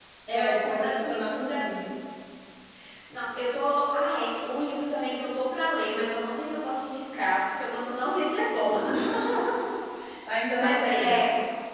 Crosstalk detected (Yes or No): Yes